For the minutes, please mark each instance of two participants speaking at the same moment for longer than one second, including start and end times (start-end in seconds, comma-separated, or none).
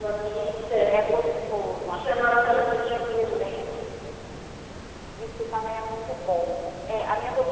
1.9-3.4